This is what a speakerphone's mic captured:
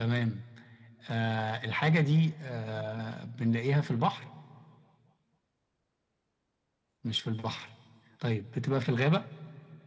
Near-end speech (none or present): none